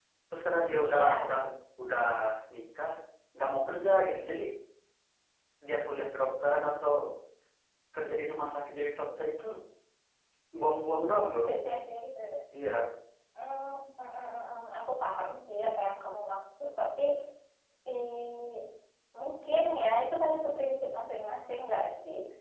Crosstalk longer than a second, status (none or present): none